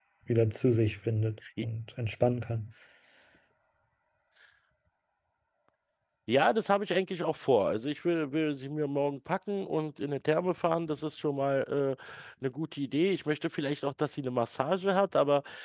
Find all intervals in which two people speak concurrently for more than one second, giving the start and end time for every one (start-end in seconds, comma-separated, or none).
none